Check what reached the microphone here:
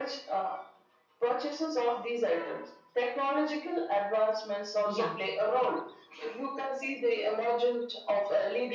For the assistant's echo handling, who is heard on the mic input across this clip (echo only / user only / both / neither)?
both